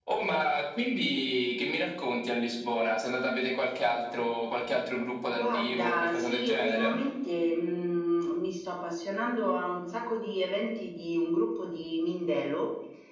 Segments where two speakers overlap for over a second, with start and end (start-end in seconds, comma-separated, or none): 5.3-6.9